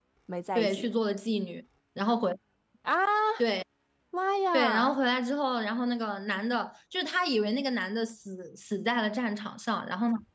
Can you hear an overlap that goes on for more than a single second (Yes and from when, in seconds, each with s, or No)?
No